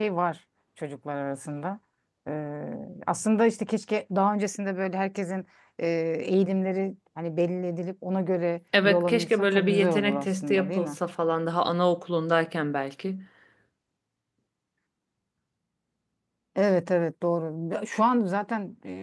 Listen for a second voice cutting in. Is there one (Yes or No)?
Yes